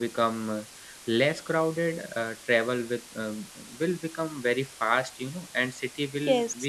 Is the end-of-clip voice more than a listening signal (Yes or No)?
No